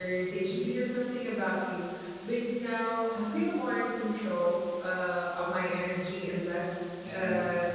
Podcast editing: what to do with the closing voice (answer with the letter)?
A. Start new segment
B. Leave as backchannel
B